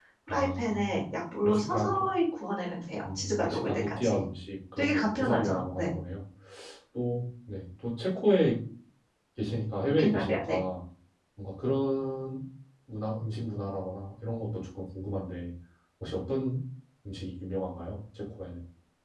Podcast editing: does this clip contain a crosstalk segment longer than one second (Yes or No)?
Yes